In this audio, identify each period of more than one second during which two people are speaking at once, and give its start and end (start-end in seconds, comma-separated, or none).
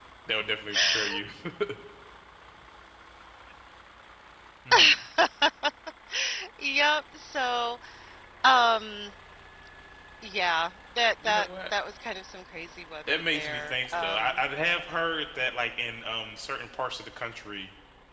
13.1-14.3